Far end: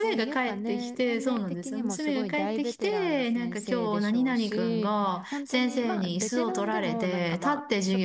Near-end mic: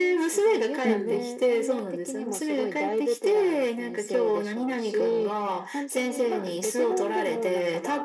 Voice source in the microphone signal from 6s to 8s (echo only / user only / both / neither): echo only